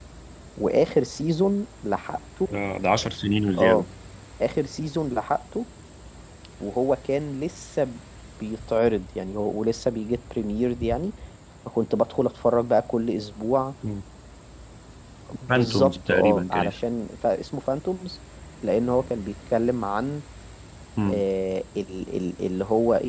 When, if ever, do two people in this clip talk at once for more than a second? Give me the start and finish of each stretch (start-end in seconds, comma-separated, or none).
15.5-16.7